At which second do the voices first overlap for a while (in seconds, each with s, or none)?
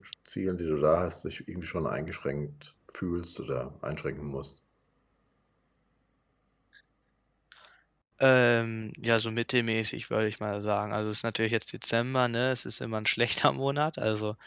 none